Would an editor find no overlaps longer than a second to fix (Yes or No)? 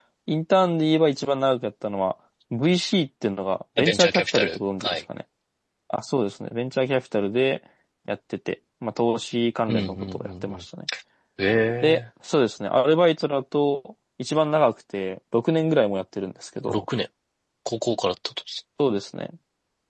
No